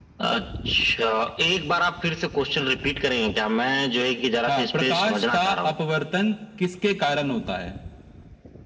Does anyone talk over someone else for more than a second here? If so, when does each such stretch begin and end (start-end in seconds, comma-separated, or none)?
4.5-5.7